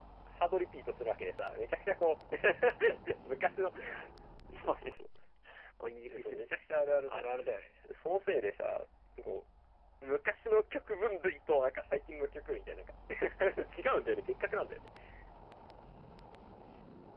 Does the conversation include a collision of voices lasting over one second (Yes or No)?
No